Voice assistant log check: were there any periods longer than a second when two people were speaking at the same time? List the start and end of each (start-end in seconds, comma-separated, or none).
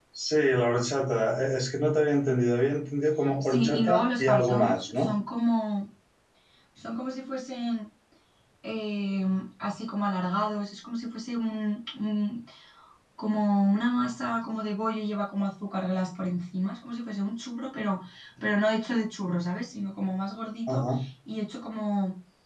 3.4-5.1